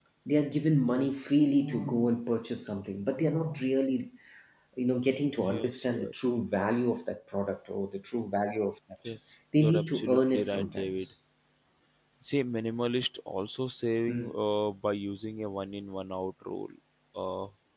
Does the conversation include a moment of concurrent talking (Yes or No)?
Yes